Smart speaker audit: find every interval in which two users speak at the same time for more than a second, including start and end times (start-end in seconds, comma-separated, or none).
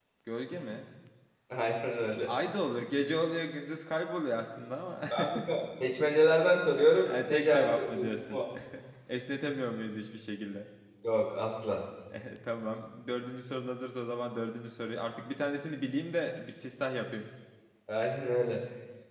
7.1-8.4